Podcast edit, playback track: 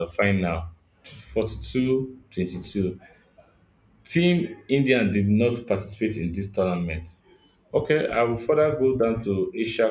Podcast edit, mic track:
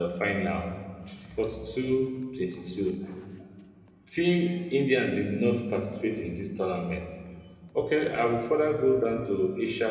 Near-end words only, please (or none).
none